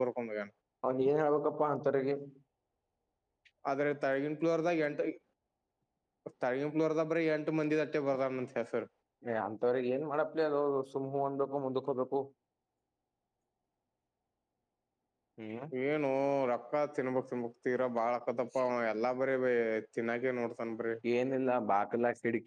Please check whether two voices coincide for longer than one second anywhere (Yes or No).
No